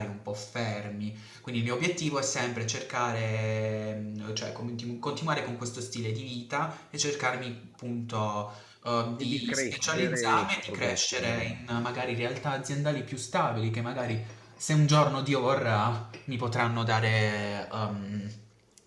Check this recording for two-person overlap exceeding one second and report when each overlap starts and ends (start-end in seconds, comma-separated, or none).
9.2-11.6